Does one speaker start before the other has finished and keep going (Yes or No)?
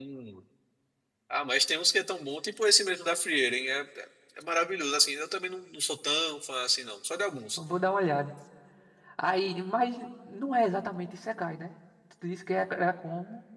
No